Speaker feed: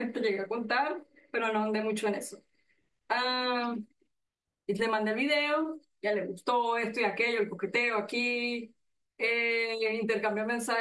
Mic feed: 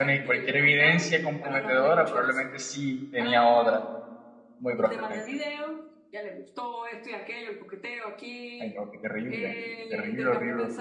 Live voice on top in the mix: Yes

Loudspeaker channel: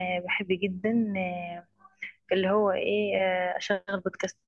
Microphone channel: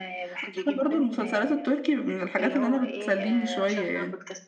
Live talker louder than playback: Yes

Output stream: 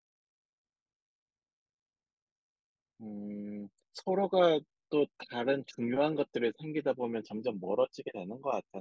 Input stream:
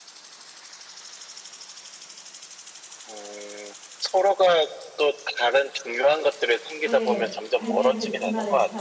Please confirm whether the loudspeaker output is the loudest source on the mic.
Yes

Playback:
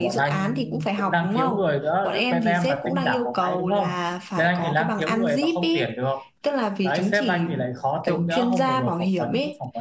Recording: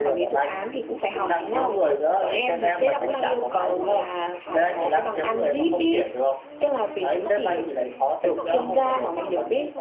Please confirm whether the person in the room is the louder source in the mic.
No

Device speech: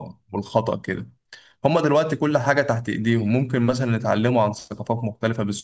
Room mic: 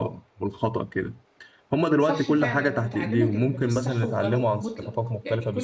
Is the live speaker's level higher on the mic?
No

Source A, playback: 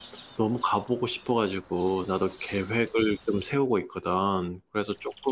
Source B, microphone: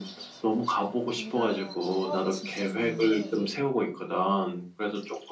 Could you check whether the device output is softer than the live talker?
No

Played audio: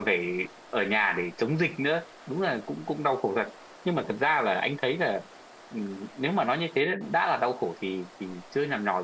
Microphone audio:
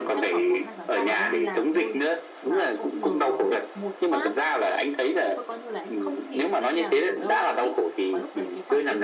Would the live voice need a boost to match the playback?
Yes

